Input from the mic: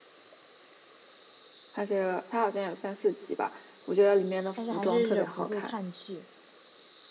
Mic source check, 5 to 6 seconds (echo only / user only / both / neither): both